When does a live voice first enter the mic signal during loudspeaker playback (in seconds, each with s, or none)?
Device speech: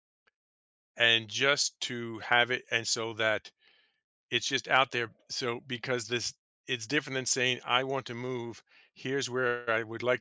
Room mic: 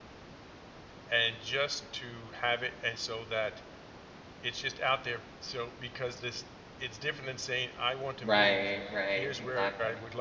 8.2 s